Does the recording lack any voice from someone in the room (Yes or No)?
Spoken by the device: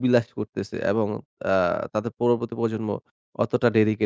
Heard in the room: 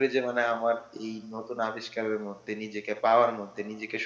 No